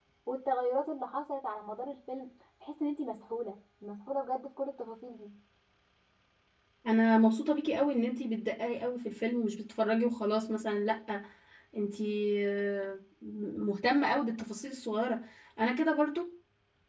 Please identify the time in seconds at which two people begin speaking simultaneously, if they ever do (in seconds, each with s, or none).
none